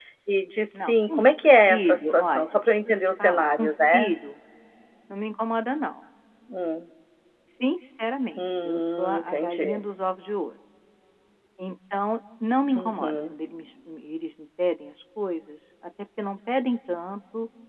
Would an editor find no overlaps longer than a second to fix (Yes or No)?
No